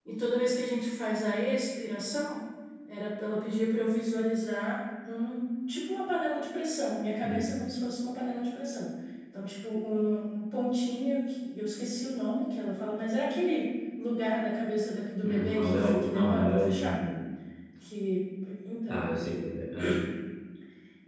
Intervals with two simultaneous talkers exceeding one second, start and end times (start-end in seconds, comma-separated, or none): 15.2-16.9